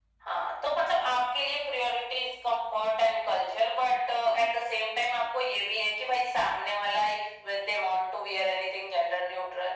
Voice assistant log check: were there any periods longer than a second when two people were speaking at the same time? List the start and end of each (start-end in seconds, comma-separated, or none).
none